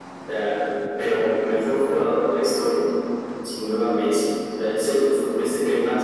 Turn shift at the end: No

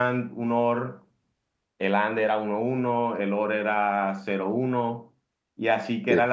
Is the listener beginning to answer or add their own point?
No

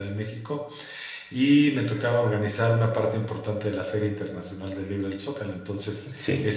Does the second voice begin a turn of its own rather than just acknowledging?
No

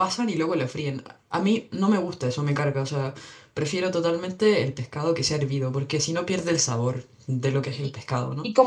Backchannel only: No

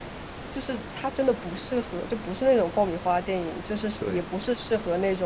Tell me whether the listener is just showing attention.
Yes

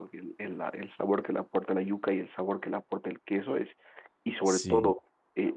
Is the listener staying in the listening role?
Yes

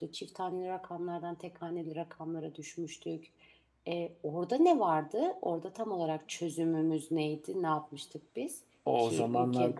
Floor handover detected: Yes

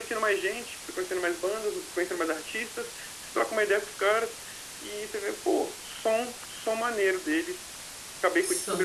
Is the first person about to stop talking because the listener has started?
No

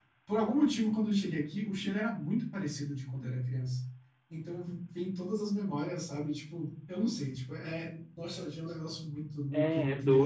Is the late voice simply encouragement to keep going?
No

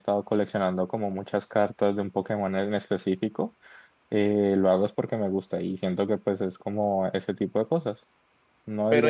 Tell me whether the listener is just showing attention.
No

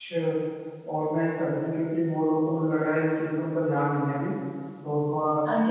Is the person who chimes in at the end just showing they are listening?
No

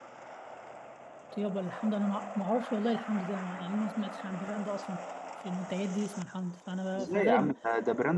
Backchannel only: No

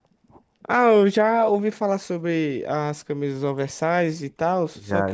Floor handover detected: Yes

